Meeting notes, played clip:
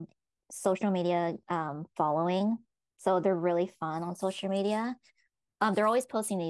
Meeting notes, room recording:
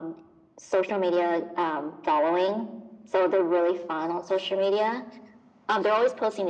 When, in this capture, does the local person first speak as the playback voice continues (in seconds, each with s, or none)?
none